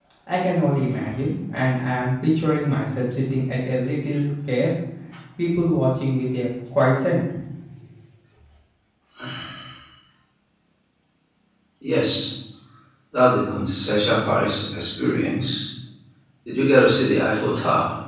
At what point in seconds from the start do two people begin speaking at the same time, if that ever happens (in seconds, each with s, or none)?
none